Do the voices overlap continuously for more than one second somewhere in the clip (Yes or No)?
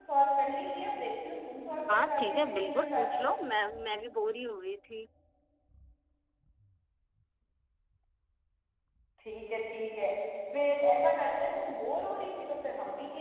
Yes